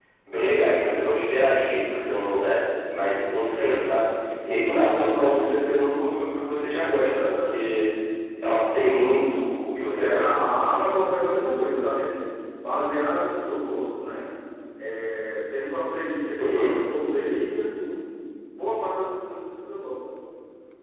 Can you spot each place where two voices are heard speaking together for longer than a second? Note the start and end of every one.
none

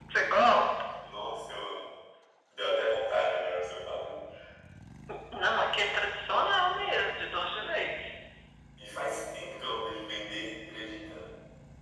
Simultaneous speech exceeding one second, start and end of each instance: none

